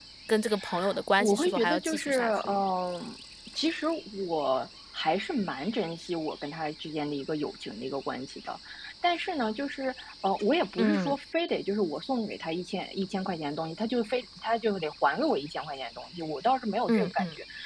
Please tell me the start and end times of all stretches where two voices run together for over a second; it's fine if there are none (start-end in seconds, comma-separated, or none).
1.2-2.6